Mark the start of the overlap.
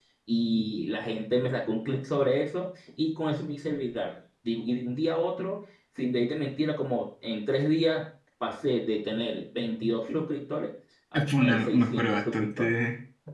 11.4 s

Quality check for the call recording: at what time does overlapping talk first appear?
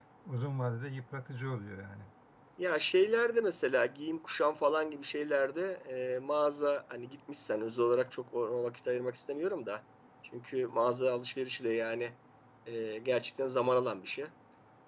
none

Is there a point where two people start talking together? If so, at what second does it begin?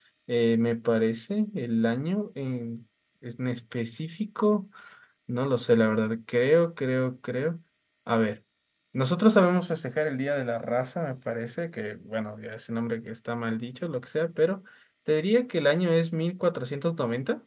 none

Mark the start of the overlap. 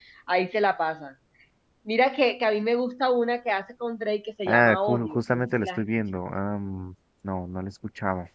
4.5 s

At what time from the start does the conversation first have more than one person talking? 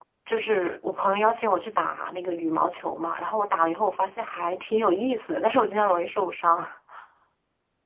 none

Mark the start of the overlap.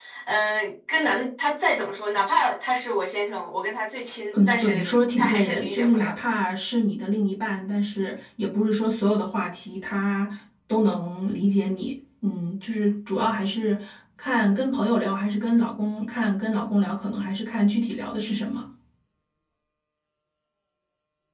4.3 s

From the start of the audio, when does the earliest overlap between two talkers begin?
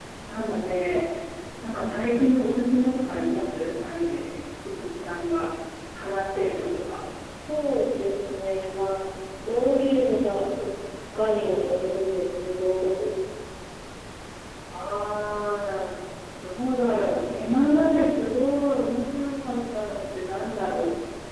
none

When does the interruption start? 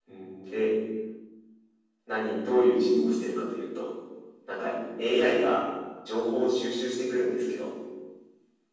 none

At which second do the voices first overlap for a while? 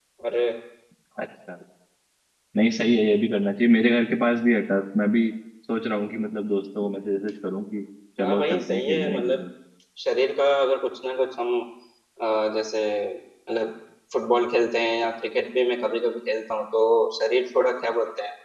8.2 s

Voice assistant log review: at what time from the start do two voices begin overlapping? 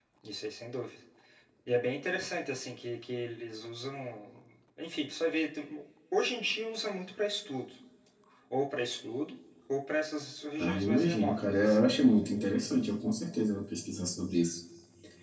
10.6 s

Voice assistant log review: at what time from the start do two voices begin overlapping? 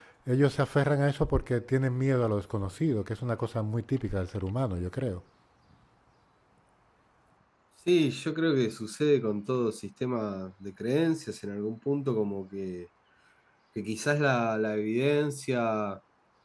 none

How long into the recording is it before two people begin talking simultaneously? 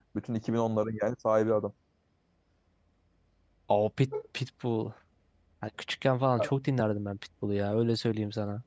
none

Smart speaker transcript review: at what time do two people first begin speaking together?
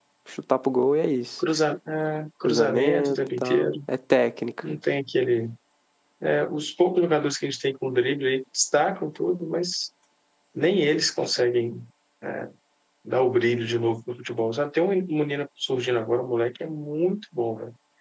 2.5 s

